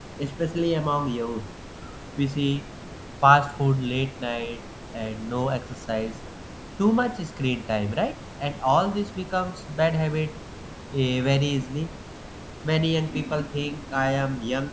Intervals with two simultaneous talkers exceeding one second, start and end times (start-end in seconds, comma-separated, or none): none